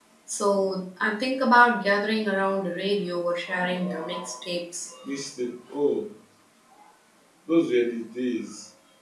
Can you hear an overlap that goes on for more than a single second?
No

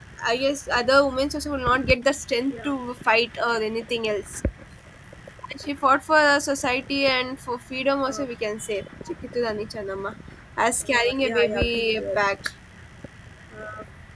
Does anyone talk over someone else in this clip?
Yes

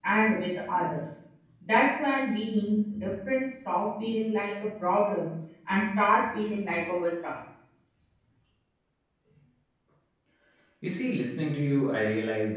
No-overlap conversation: Yes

